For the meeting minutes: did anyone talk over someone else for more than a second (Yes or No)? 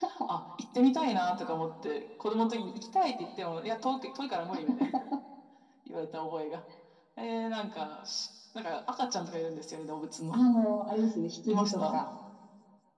No